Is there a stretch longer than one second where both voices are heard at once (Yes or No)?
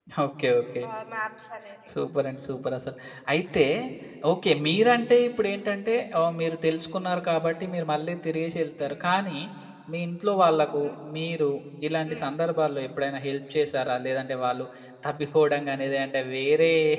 No